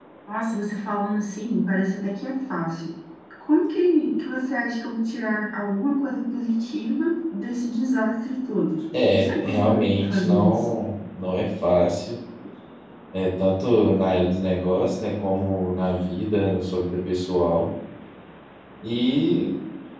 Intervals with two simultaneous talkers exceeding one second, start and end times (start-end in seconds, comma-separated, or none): 9.0-10.6